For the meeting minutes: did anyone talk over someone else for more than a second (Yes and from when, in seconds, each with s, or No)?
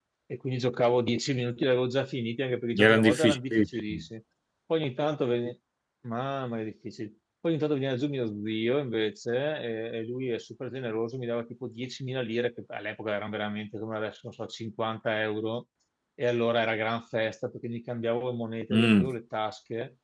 Yes, from 2.8 s